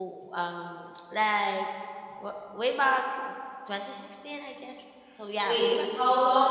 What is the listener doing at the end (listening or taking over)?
taking over